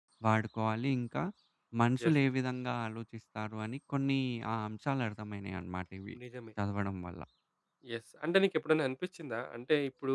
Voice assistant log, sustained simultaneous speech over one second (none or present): none